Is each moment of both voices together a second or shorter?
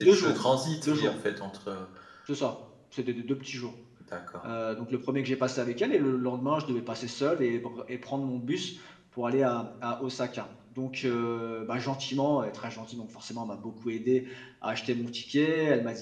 Yes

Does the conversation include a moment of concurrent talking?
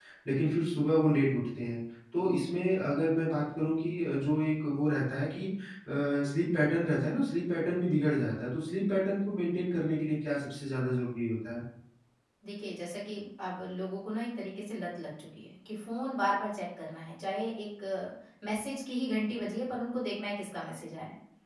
No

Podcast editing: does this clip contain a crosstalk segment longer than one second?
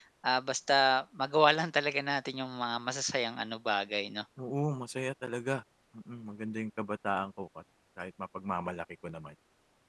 No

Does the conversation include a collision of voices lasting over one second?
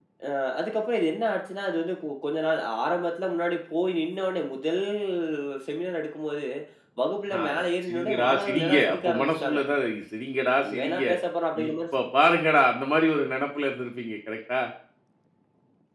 Yes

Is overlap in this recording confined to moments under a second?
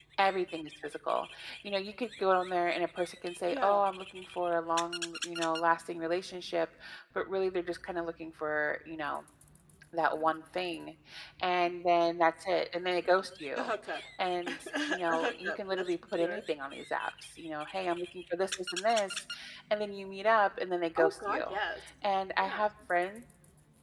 No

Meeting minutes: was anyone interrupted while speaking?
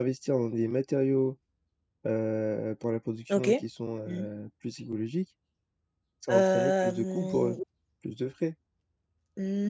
Yes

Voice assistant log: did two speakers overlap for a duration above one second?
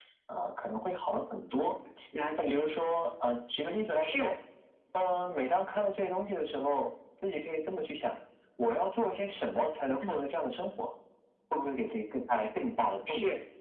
No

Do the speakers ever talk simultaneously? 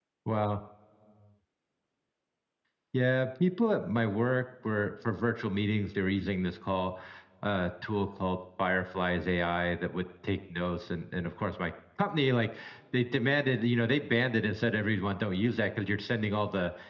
No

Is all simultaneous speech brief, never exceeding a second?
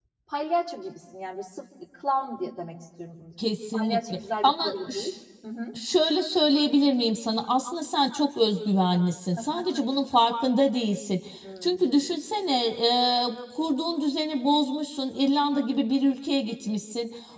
No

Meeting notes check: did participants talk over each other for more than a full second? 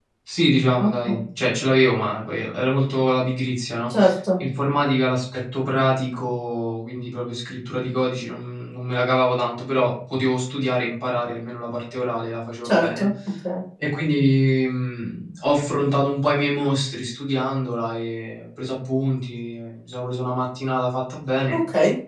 No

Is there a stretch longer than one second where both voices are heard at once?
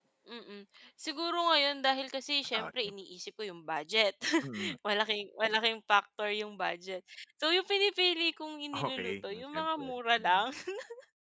Yes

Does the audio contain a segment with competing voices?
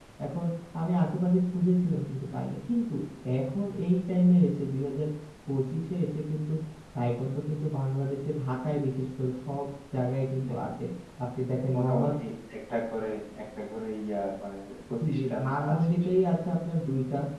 Yes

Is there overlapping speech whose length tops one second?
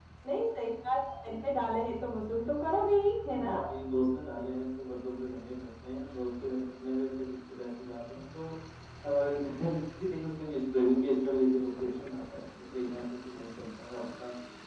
No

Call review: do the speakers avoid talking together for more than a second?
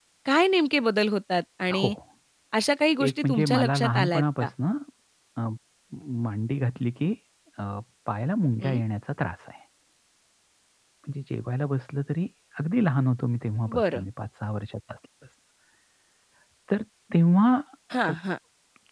No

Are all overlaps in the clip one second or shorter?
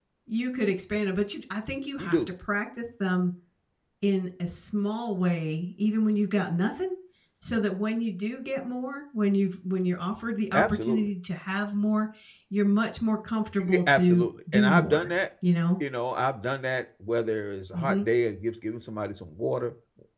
No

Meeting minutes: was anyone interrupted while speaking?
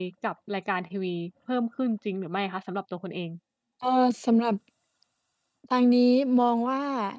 No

